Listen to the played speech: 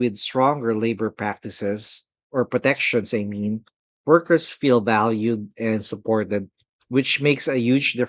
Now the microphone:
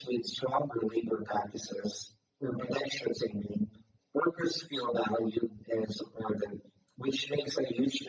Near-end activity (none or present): none